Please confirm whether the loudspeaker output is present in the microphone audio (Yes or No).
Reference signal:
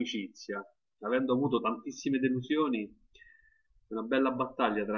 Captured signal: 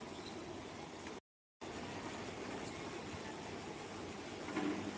No